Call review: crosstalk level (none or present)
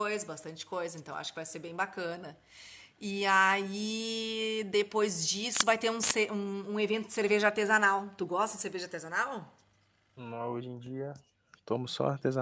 none